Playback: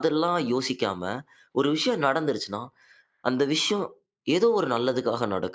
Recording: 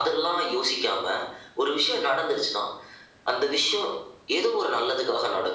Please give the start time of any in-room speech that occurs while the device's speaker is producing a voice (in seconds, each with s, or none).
none